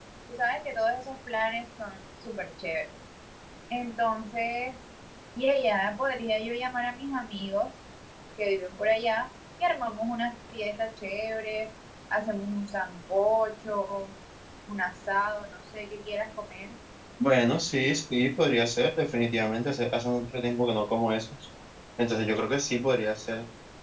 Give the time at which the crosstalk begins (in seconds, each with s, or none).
none